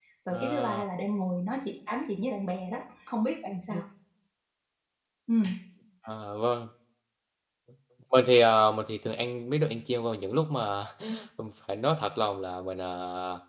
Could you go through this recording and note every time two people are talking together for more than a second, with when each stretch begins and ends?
none

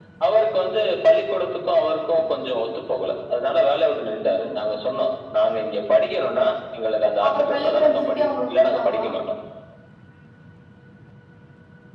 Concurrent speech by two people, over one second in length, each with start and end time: 7.2-9.1

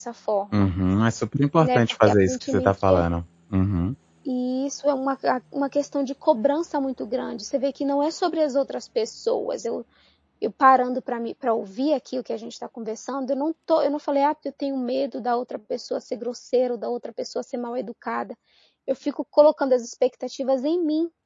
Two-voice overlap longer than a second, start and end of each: 1.6-3.0

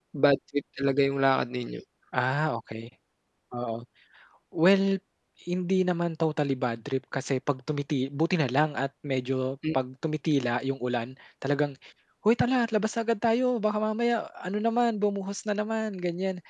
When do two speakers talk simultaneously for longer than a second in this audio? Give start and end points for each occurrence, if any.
none

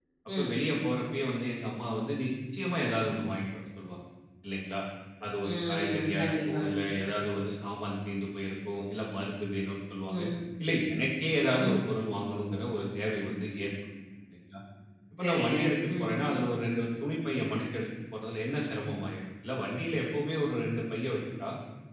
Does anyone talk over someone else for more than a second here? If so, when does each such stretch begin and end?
5.5-6.7

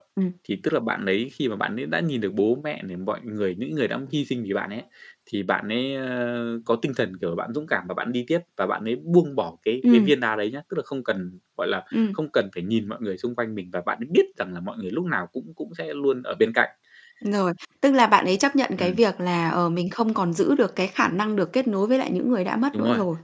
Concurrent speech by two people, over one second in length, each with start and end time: none

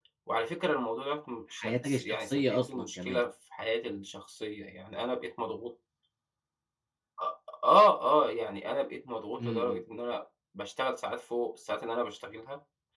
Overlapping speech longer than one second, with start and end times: 1.5-3.2

